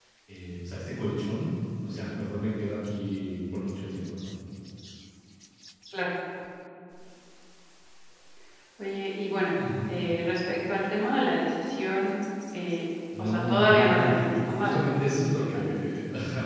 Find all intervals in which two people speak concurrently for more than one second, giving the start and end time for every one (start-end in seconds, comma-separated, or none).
13.2-14.8